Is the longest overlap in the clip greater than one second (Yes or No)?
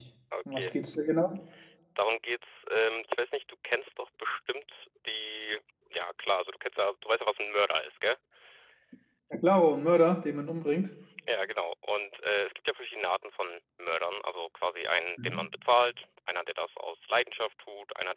No